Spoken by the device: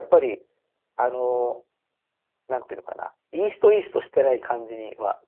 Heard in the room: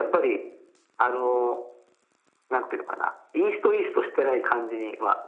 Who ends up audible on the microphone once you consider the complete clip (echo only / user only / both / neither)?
echo only